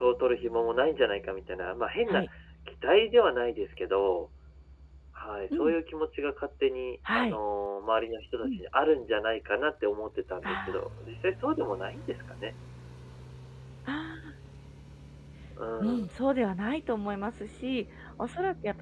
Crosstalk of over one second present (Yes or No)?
No